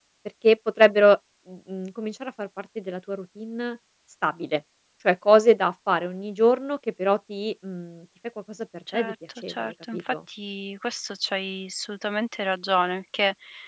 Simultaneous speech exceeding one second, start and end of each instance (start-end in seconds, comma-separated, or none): 8.9-10.1